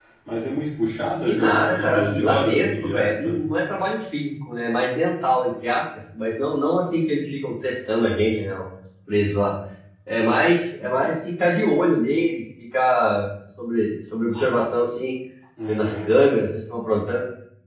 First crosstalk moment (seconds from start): 1.3 s

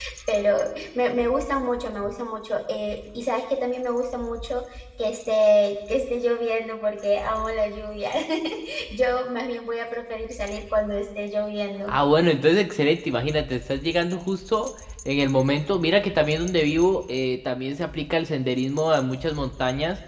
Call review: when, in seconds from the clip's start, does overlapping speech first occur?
none

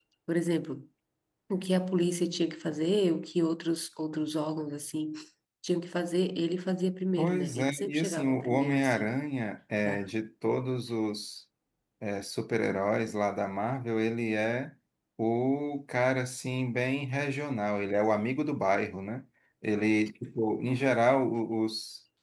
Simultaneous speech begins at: 7.2 s

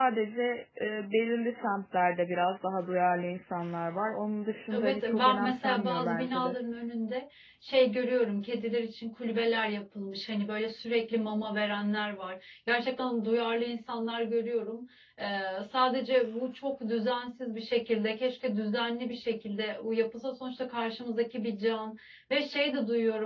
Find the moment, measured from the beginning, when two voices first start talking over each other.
4.7 s

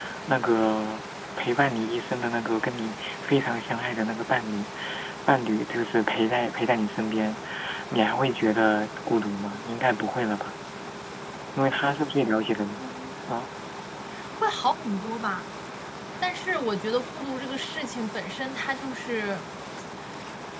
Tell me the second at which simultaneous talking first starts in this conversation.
none

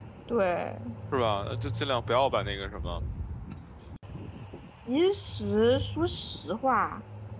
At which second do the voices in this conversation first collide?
none

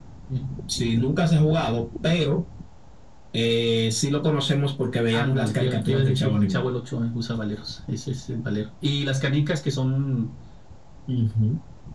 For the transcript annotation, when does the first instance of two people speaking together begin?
5.1 s

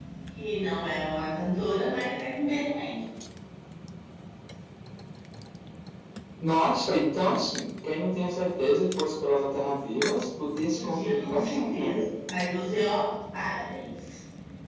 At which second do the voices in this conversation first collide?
10.7 s

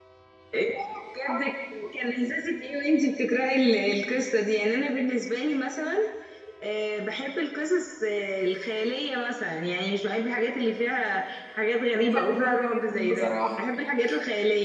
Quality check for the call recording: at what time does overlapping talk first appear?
11.9 s

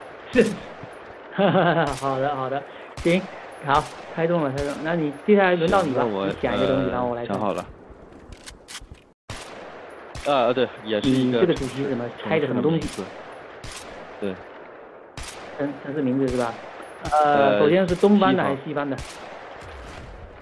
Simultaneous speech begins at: 5.5 s

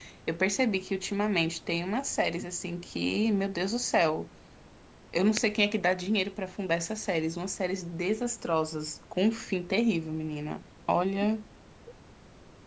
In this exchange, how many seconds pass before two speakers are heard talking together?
none

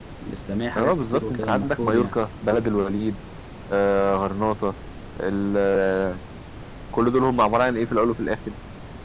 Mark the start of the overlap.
0.8 s

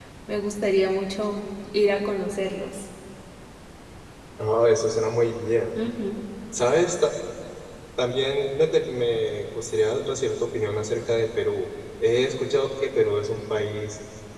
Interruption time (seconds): none

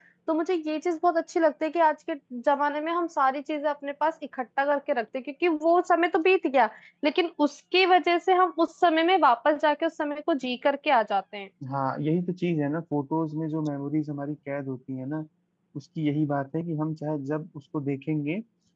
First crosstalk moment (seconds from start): none

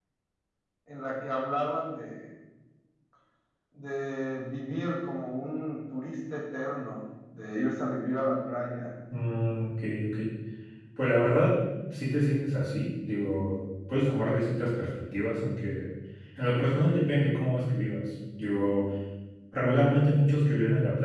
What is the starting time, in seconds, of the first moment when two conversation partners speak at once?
none

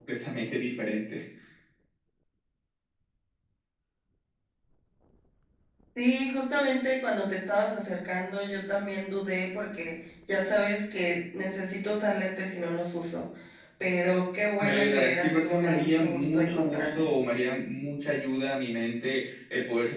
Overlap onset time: 14.6 s

